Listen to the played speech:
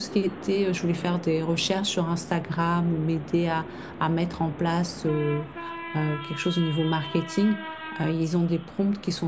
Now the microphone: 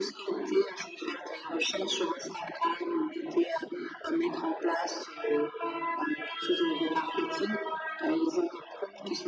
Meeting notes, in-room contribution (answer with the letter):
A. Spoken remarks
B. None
B